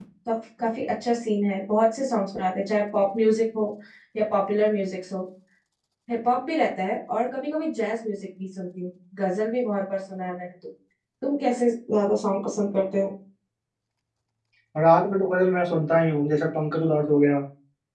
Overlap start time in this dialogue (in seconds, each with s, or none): none